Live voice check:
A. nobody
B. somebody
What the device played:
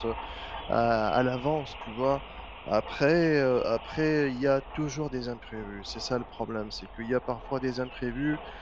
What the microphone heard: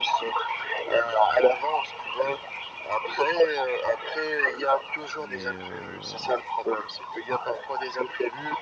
B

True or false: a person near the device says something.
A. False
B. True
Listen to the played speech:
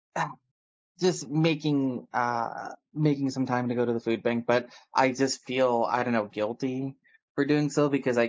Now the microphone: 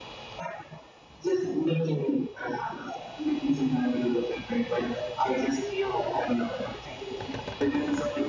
A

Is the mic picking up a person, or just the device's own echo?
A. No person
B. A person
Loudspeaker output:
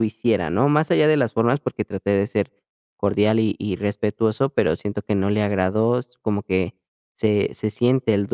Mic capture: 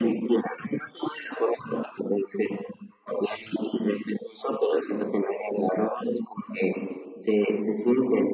A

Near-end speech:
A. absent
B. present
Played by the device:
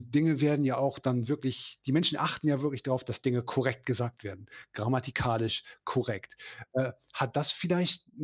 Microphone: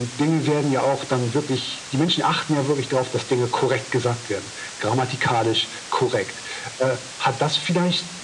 A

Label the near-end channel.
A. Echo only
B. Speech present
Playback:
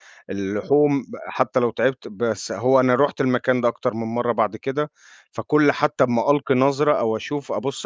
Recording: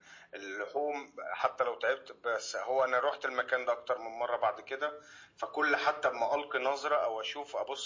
A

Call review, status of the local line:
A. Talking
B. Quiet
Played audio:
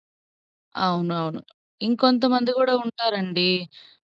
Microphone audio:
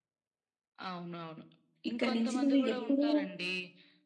A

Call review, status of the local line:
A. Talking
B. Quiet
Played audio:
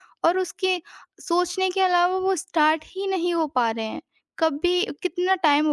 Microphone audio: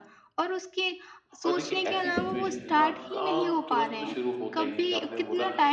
A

